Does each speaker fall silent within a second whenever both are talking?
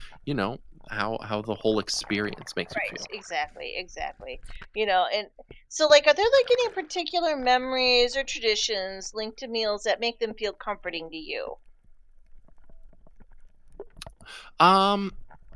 Yes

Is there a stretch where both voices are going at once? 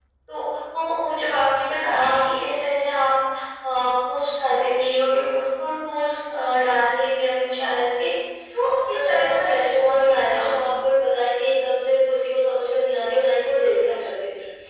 Yes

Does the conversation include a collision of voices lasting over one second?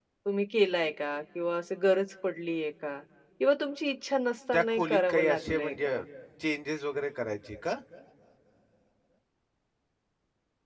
Yes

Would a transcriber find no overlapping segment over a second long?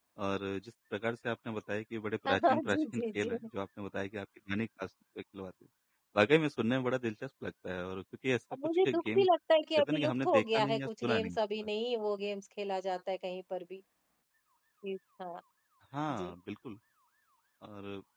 No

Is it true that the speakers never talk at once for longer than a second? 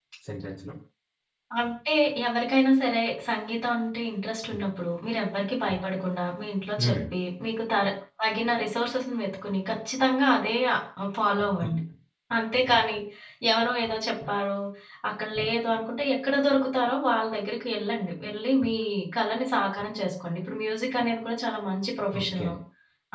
Yes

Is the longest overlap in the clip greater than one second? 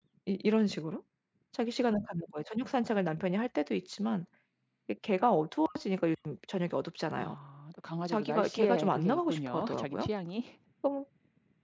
Yes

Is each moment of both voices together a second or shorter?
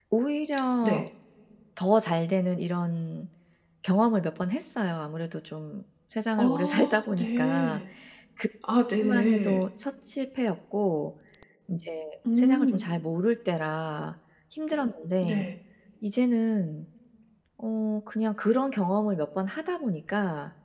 No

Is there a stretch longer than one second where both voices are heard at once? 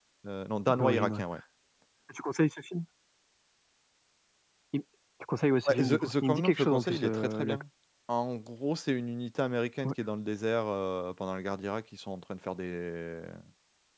Yes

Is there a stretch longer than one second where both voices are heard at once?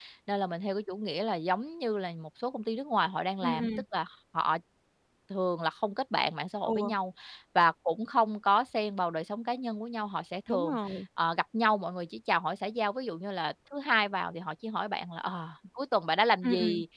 No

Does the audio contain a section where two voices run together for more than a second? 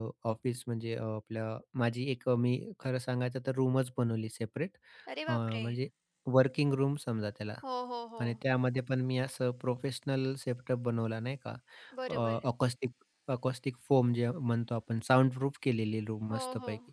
No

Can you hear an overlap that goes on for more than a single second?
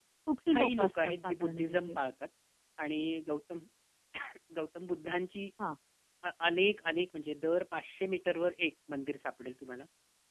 Yes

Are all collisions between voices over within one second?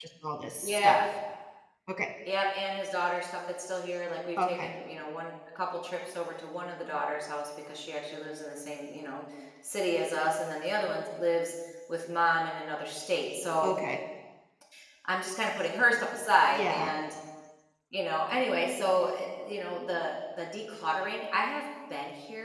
Yes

